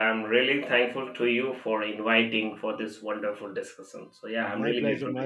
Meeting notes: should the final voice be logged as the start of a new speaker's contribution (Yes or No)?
Yes